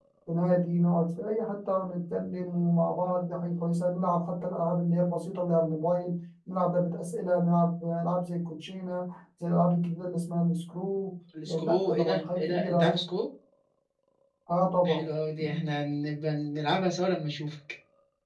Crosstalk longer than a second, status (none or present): present